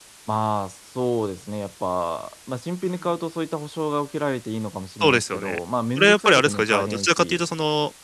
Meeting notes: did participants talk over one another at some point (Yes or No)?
Yes